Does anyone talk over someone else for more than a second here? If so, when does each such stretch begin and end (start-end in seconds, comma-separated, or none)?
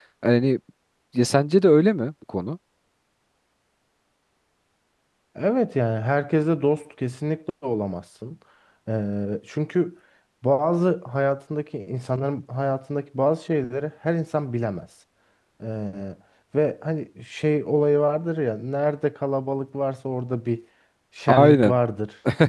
none